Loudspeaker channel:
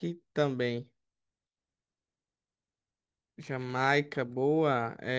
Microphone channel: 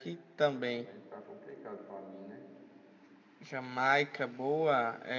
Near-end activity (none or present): present